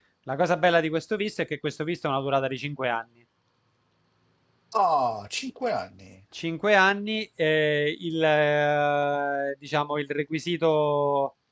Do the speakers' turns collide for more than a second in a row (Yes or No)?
No